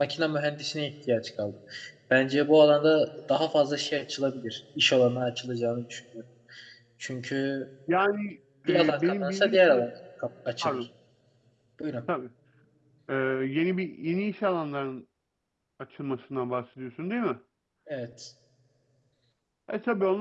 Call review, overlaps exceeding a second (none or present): present